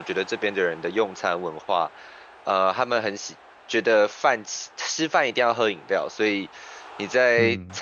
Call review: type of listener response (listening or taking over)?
listening